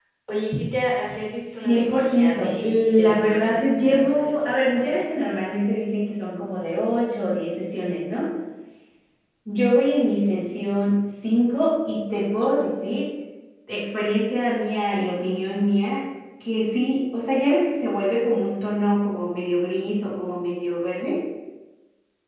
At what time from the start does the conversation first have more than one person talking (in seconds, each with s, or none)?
1.6 s